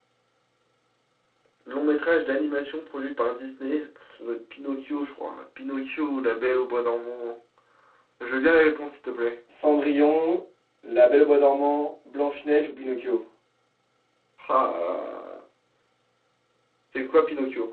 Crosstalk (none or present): none